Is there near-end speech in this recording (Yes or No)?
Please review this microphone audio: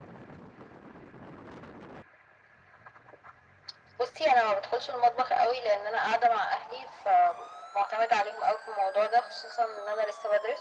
No